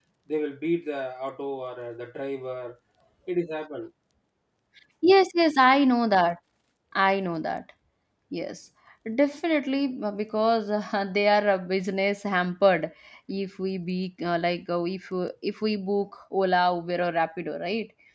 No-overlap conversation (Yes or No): Yes